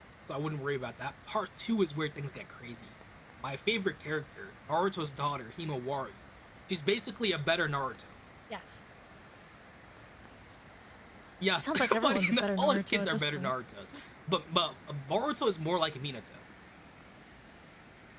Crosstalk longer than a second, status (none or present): present